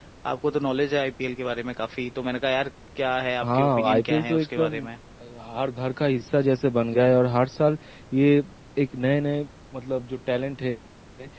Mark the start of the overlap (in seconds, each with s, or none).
3.4 s